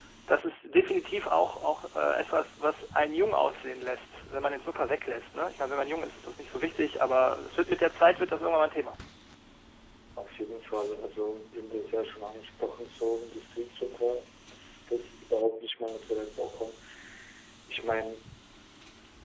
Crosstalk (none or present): none